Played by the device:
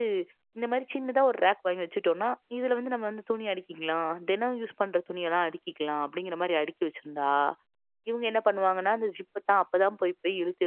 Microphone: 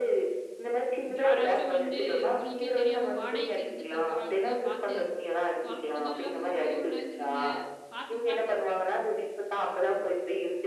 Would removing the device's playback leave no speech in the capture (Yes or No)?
No